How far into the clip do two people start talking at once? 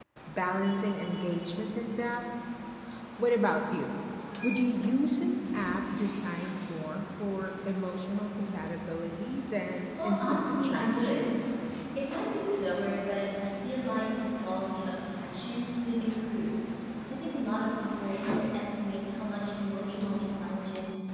10.0 s

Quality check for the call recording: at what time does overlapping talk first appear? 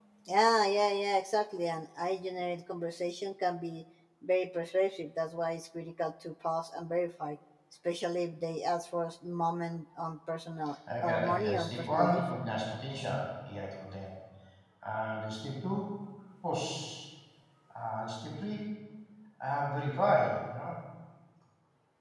11.0 s

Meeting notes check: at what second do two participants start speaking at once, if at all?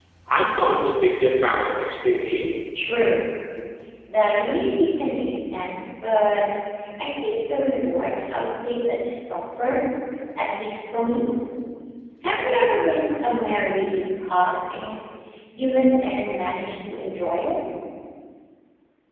none

